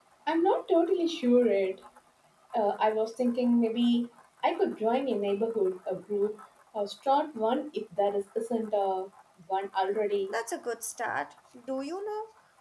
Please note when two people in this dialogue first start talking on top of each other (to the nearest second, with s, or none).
none